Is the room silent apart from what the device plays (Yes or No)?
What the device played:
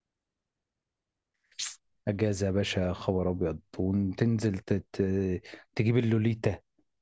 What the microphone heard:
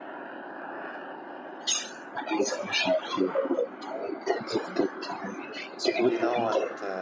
No